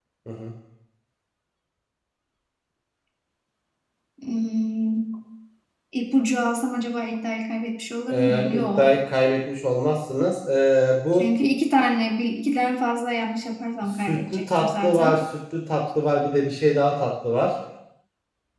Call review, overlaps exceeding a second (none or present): present